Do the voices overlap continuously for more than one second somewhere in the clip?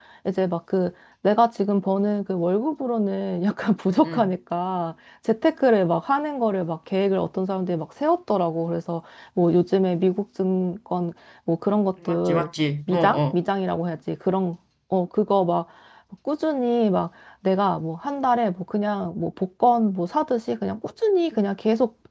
No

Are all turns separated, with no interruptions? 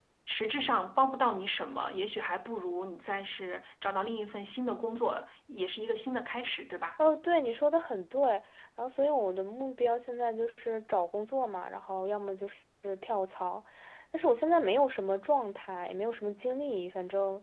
Yes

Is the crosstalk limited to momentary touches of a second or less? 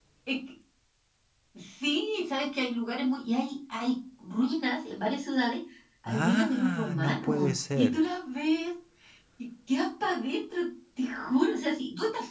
No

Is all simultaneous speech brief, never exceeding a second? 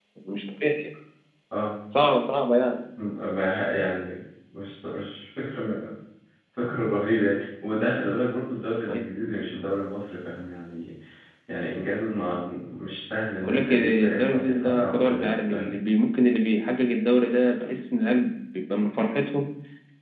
No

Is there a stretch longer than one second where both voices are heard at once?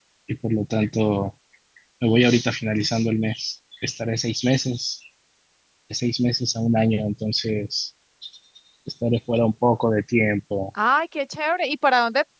No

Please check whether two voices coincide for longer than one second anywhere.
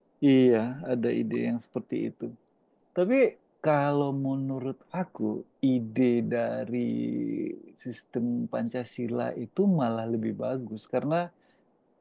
No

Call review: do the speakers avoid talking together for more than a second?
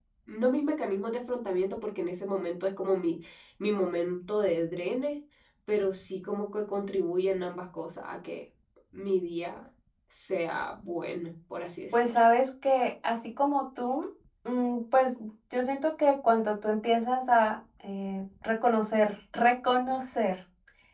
Yes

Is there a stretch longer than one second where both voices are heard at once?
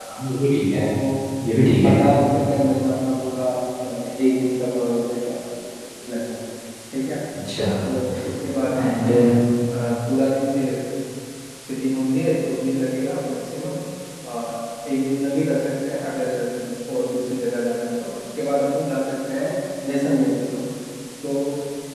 No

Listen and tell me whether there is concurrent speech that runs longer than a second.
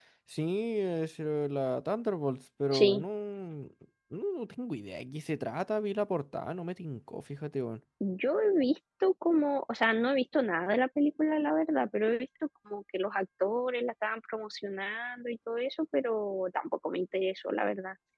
No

